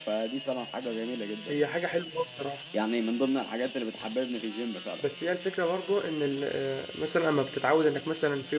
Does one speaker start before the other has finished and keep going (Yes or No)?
No